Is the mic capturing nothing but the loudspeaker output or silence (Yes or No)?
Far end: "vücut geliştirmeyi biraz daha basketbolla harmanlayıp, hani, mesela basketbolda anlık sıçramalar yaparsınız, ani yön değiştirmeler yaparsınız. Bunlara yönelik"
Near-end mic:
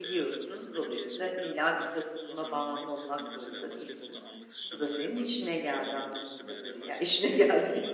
No